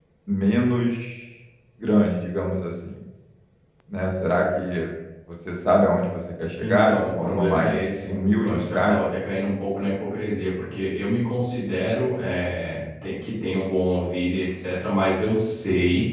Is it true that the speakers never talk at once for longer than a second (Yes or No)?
No